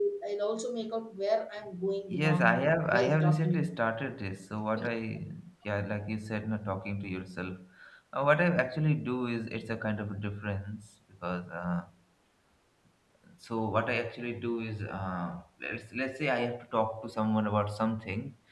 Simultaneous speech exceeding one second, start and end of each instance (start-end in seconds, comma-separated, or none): 2.1-3.6